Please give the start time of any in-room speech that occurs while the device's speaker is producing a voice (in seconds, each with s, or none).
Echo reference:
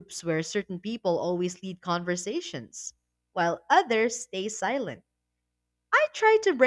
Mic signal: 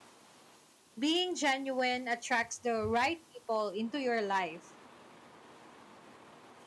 1.0 s